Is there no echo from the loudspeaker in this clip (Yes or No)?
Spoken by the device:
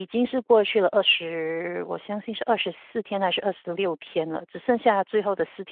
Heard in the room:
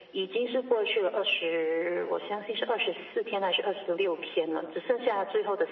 No